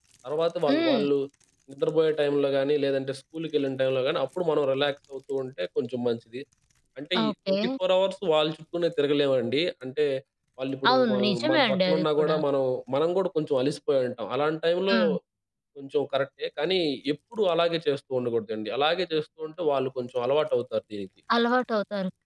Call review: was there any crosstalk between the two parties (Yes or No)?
Yes